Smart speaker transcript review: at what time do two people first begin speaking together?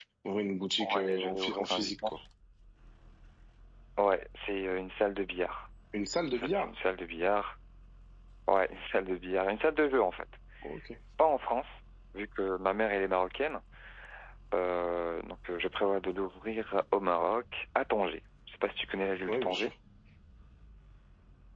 1 s

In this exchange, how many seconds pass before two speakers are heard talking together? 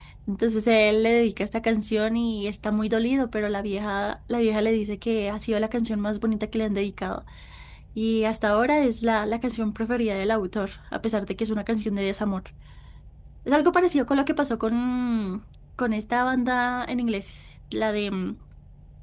none

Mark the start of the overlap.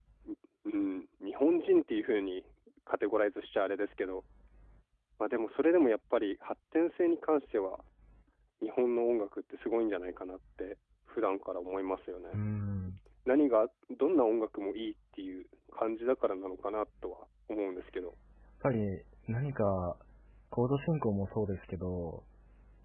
none

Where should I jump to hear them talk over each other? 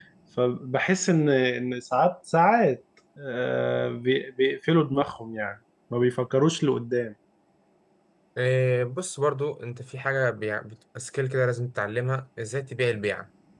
none

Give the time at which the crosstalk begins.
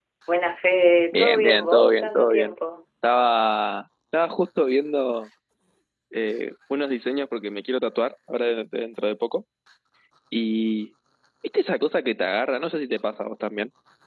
1 s

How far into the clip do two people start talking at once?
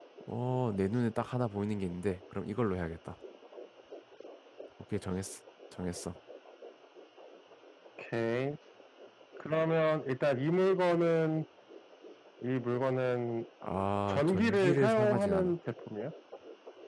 14 s

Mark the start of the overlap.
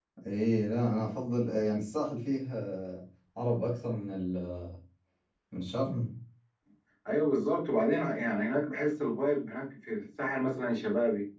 none

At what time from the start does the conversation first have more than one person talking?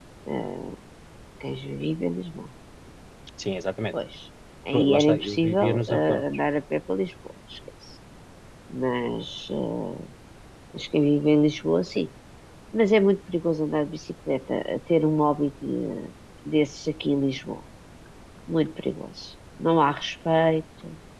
5 s

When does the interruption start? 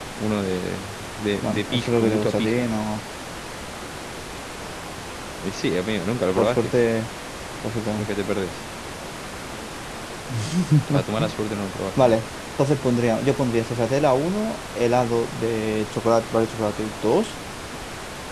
1 s

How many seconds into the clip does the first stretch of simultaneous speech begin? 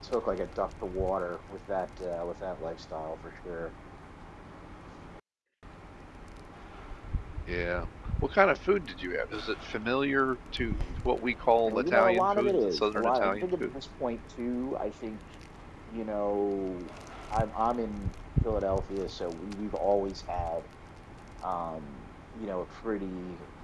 12 s

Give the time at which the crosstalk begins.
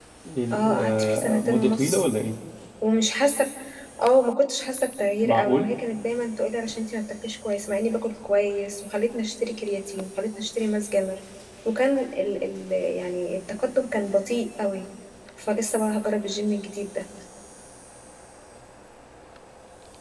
1 s

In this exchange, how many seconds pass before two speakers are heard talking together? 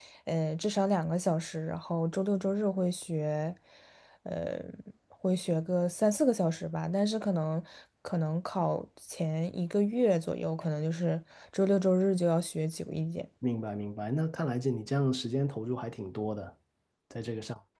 none

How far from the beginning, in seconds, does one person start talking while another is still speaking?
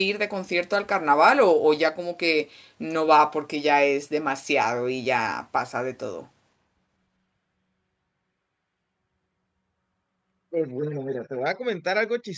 none

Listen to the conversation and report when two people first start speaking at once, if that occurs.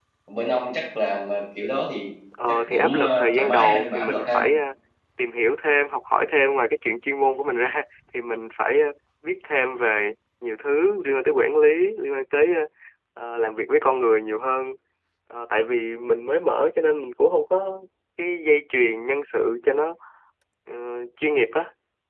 2 s

